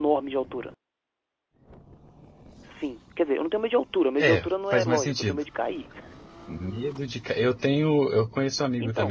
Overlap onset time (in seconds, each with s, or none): 4.2 s